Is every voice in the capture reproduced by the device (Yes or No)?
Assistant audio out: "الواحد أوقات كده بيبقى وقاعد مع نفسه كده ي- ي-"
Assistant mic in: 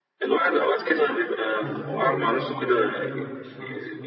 No